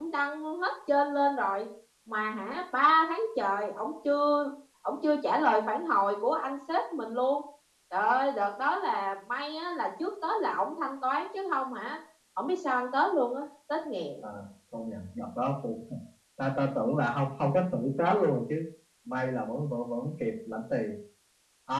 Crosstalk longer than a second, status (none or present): none